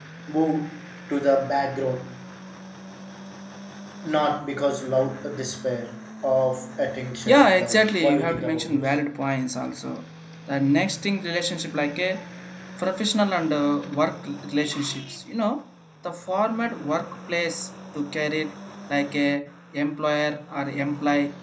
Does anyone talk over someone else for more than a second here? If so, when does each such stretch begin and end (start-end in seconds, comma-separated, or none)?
7.3-8.9